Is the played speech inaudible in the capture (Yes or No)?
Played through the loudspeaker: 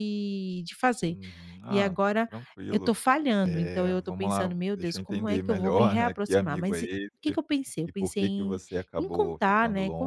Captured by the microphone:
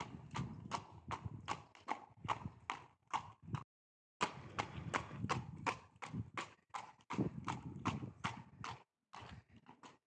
Yes